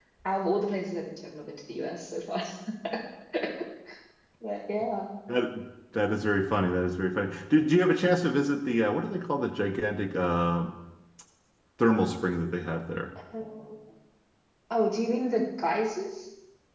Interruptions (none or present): none